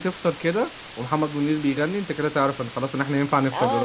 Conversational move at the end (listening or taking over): taking over